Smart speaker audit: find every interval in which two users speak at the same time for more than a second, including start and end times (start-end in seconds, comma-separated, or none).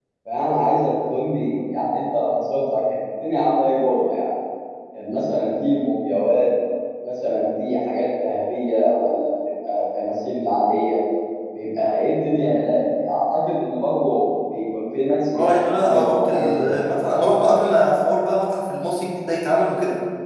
15.3-17.0